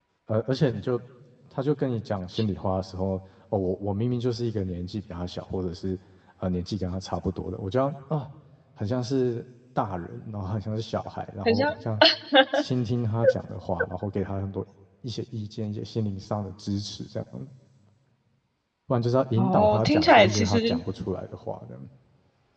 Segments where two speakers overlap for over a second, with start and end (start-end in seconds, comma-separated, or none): 19.4-20.6